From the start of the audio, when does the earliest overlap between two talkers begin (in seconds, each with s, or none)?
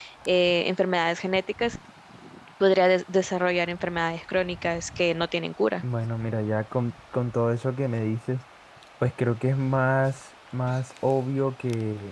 none